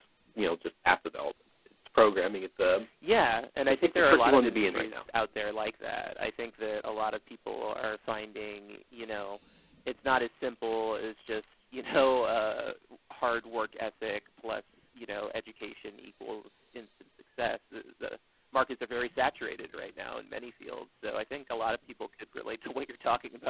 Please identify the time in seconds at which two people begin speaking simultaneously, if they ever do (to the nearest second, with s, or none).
4 s